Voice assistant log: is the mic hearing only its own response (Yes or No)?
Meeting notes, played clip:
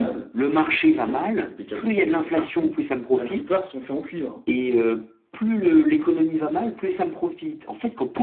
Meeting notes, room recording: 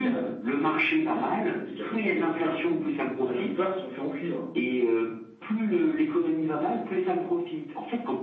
Yes